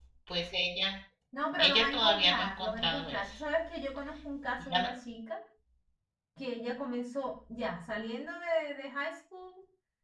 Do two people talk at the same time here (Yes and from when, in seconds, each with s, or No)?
Yes, from 1.6 s